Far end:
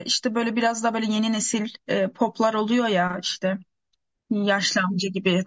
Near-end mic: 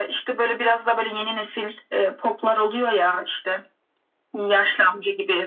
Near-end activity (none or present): none